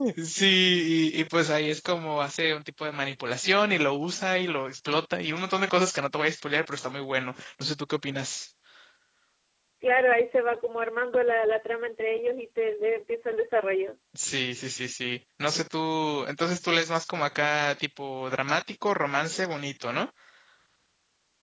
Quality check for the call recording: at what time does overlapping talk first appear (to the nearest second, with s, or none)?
none